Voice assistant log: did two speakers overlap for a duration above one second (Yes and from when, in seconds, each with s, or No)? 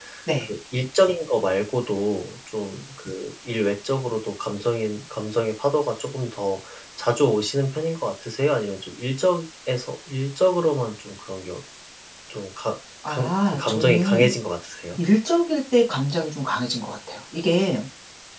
Yes, from 13.1 s